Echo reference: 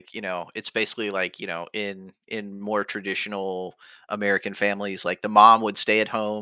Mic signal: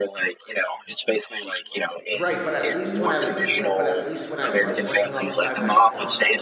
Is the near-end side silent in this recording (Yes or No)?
No